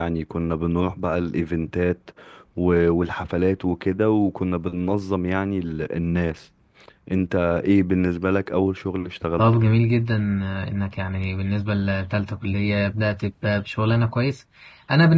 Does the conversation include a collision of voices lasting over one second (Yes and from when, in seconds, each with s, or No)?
No